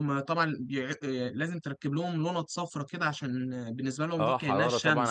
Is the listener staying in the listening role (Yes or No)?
No